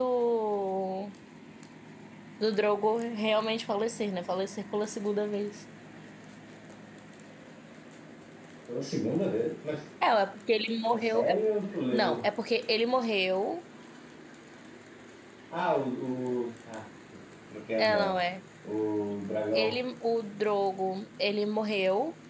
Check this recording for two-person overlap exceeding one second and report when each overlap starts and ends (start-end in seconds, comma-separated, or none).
none